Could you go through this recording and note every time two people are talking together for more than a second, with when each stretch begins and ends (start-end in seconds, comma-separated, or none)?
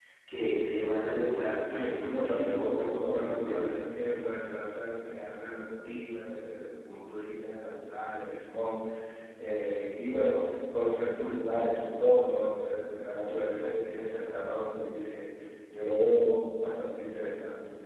1.7-3.7